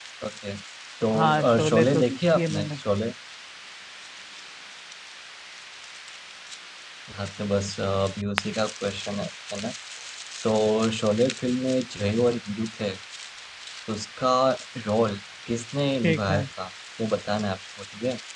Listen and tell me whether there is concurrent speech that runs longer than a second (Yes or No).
Yes